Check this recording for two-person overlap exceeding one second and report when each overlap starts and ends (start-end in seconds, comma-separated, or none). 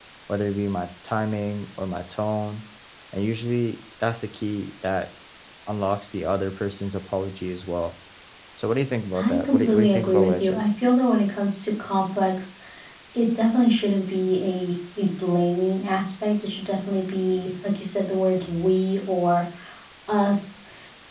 9.2-10.6